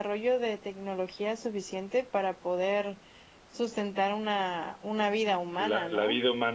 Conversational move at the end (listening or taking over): taking over